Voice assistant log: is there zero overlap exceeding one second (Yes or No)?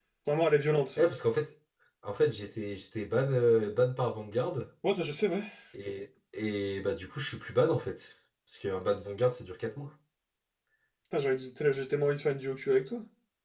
Yes